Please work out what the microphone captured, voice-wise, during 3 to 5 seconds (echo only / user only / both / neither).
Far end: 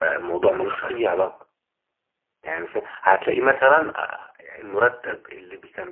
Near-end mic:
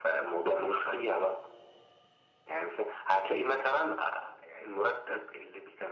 echo only